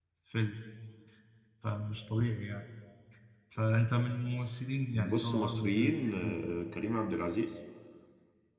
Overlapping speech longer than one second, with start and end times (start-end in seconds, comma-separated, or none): 4.9-6.5